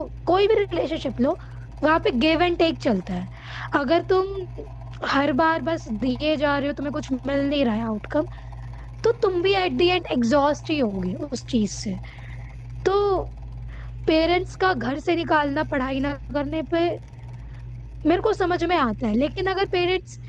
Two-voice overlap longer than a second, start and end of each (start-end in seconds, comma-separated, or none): none